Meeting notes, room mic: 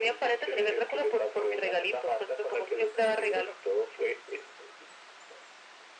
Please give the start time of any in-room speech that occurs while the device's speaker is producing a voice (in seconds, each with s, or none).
none